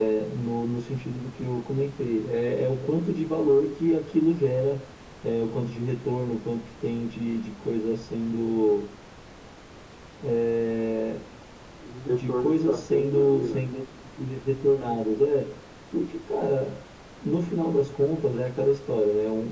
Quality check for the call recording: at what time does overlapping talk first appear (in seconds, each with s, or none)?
12.1 s